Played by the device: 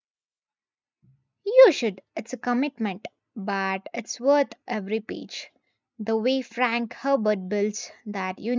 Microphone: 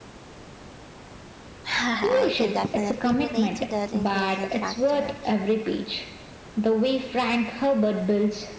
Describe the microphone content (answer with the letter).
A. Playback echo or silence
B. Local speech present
B